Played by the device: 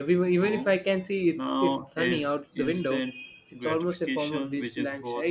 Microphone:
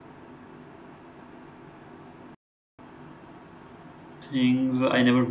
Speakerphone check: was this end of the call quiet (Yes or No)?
No